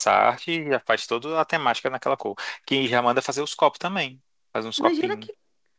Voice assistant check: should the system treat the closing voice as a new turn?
Yes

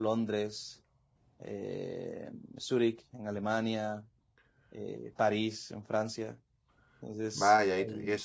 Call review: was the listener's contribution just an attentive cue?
No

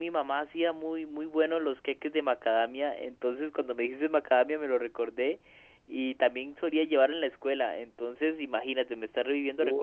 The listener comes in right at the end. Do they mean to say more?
Yes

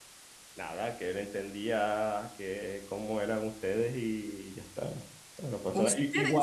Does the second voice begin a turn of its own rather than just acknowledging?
No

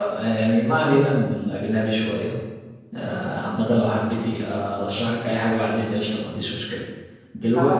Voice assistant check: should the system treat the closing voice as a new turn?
No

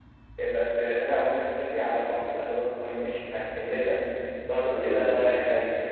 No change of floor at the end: Yes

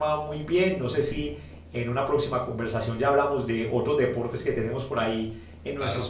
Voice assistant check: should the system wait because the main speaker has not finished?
Yes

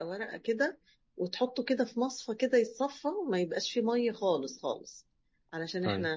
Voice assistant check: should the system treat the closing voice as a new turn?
No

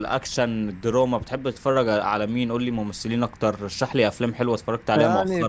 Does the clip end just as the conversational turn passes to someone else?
Yes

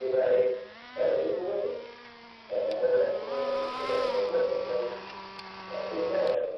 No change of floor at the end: Yes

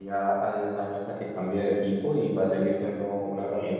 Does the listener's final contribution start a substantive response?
No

